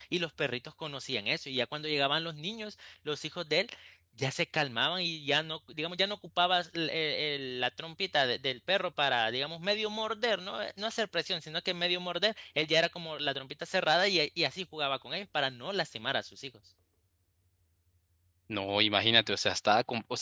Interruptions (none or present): none